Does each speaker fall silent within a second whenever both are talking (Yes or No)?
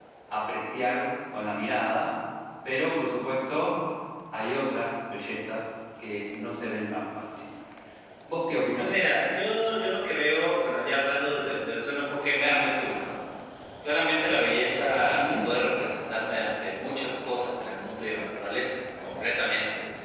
Yes